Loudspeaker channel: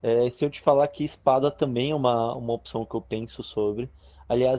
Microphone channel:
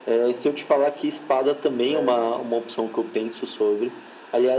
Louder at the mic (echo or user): echo